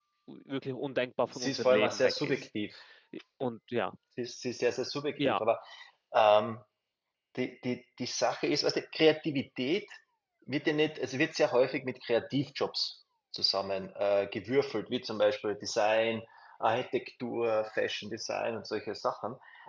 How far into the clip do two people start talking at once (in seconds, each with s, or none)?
1.3 s